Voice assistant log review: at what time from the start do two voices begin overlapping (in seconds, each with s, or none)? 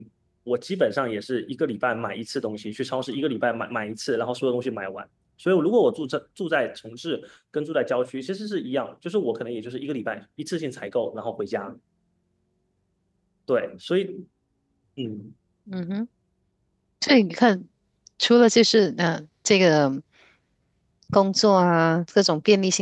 none